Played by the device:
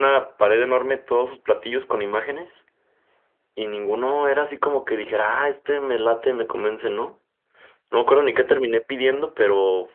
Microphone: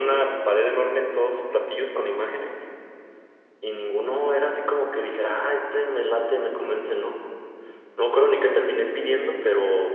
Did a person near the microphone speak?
No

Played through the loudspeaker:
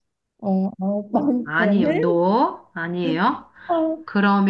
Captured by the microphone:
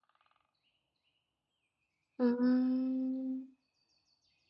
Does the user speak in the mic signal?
Yes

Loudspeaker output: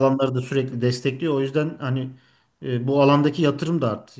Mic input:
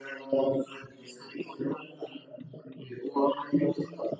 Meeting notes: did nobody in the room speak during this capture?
Yes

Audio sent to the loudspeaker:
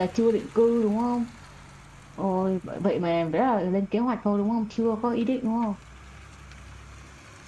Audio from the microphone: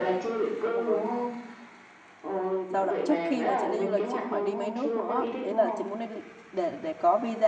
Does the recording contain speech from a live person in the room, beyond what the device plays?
Yes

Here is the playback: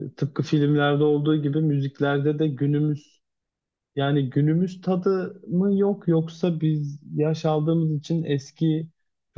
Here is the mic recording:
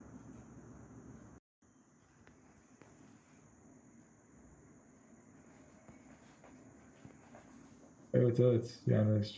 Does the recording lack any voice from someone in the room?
No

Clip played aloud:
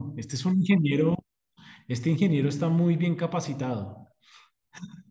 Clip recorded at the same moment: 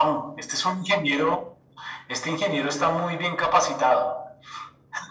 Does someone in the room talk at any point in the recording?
No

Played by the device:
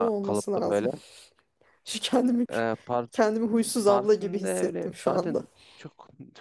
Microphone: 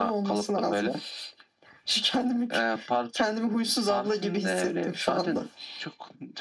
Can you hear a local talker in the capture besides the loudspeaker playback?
No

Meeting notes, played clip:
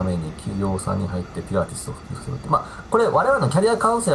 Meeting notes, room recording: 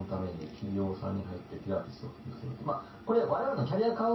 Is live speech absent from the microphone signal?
Yes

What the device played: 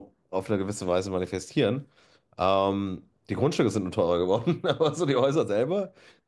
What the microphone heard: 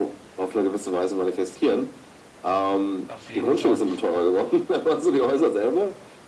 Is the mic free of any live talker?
No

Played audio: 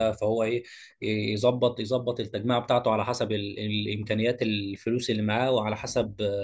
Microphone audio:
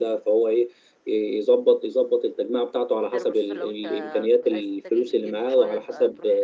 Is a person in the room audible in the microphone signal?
Yes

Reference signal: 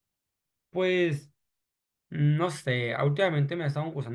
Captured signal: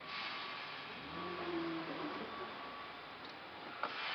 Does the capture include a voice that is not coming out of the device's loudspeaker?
No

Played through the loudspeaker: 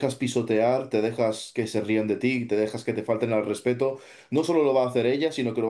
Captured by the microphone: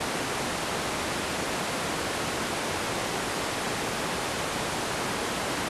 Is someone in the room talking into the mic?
No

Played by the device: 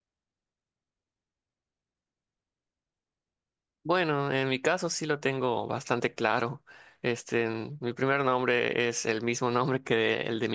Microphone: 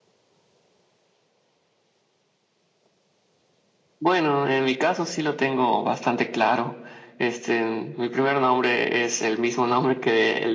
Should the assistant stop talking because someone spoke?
No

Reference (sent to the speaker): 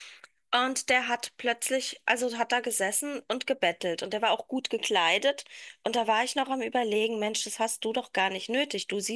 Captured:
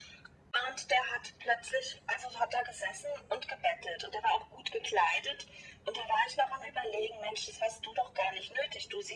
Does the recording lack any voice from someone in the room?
Yes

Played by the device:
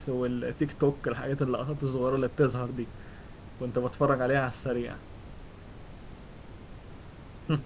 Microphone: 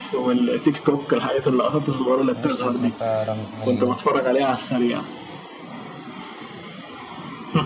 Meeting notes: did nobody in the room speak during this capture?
No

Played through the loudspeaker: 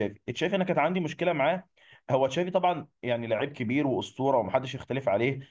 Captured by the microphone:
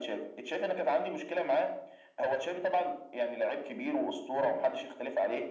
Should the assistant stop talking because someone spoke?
No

